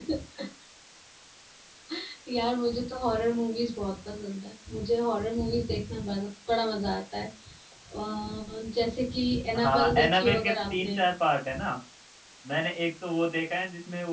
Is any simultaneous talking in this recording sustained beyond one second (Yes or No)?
Yes